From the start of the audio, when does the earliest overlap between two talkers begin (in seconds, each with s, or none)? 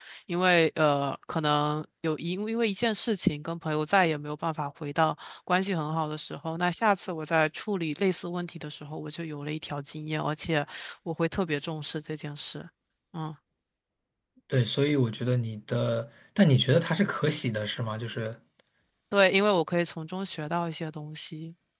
none